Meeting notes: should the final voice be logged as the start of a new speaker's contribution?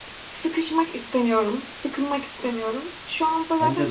No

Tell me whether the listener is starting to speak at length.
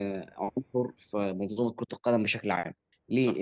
No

